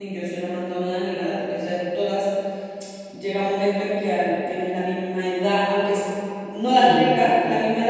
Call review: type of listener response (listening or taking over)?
listening